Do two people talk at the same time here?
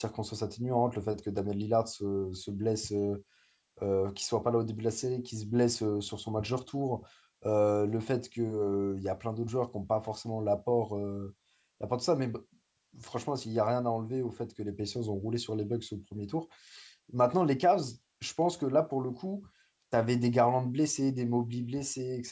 No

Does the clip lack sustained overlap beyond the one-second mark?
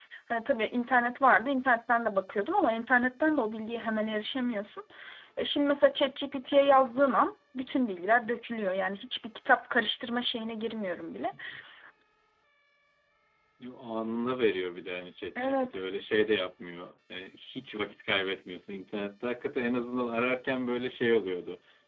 Yes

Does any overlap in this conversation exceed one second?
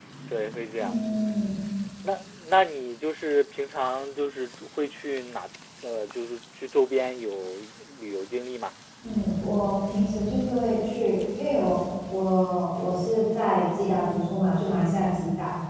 No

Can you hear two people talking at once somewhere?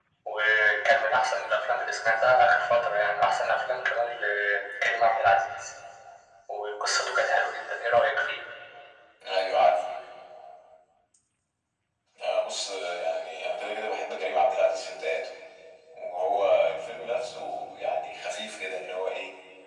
No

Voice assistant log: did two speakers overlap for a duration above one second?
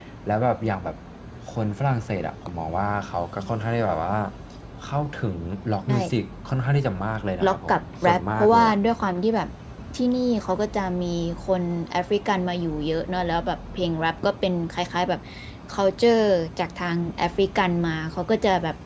Yes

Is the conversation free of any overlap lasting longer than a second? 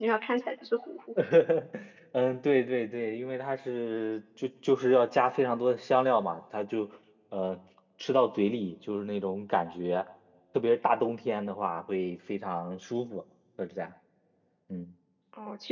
Yes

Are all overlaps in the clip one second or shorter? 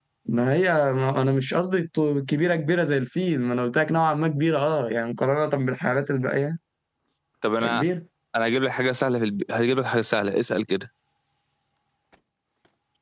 Yes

